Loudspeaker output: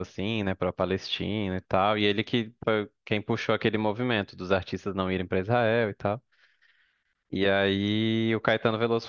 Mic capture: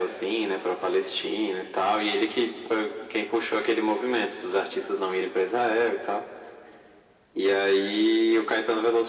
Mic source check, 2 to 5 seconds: echo only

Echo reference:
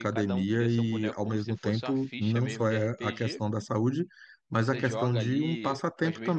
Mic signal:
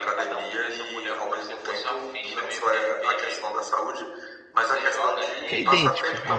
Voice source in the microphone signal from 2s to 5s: echo only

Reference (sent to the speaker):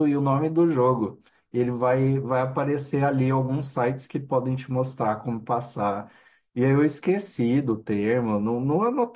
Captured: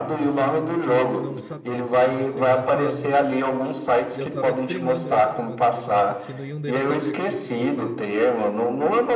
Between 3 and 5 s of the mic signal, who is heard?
both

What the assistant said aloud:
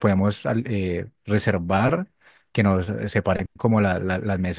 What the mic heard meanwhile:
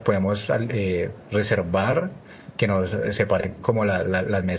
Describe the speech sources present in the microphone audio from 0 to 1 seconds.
echo only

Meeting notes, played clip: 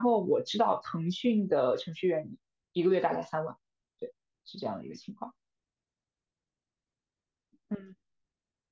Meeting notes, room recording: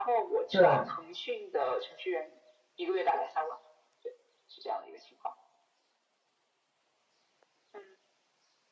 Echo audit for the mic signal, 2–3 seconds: echo only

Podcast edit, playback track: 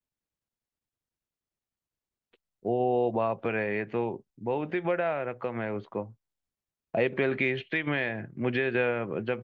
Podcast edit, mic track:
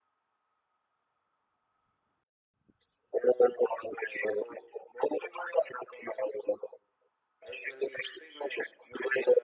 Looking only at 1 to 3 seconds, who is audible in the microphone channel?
neither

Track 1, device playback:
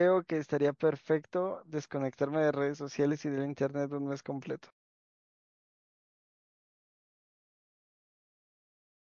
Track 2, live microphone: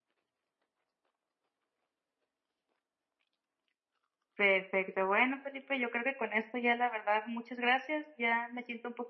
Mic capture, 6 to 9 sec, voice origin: user only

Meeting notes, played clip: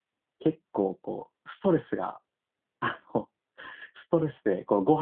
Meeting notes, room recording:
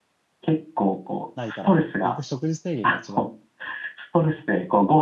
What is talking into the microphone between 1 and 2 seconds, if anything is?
both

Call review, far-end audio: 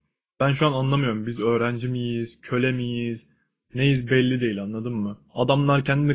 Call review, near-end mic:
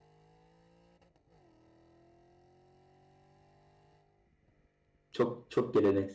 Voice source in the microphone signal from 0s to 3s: neither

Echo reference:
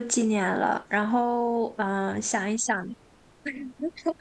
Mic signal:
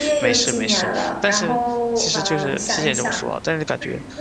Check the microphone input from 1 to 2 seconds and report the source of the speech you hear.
both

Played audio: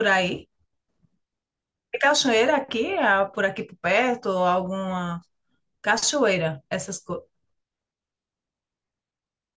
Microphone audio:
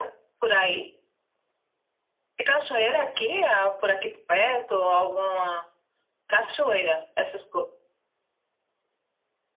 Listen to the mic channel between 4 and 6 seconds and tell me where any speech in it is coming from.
echo only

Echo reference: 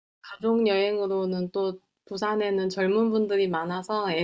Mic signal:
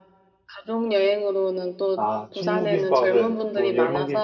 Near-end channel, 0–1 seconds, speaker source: echo only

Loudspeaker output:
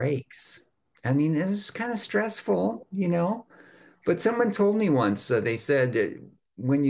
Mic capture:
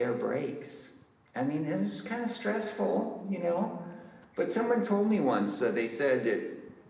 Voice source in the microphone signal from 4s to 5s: echo only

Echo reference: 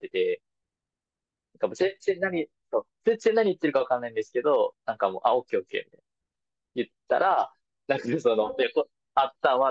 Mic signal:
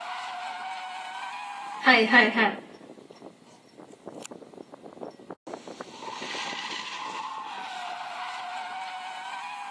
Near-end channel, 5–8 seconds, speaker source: neither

